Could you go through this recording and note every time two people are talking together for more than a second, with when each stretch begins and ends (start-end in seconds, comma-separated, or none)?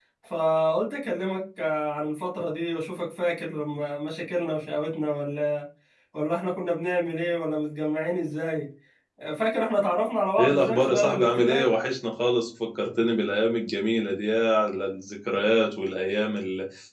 10.4-11.7